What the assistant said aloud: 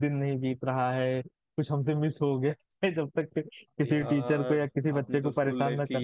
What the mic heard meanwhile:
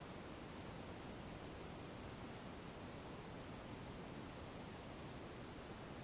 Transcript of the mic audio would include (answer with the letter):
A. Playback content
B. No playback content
B